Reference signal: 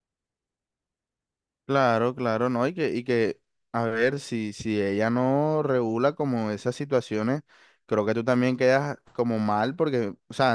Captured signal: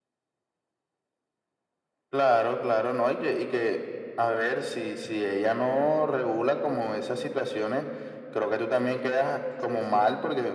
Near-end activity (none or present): present